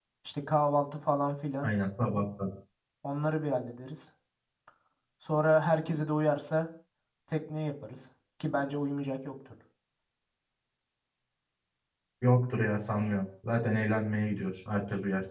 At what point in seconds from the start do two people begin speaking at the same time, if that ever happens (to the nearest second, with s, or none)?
none